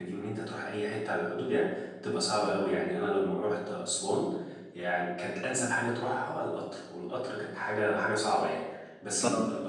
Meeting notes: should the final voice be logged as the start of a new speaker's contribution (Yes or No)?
No